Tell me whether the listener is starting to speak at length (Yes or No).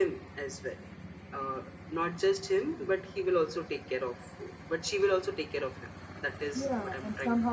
Yes